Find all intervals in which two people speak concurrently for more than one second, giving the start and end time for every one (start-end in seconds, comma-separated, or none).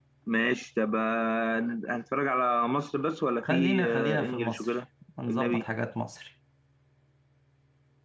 3.4-4.8